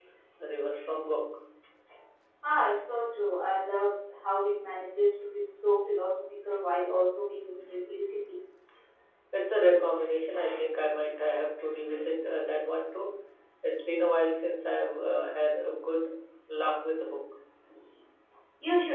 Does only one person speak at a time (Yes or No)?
Yes